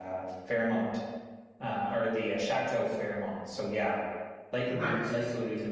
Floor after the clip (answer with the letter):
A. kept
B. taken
A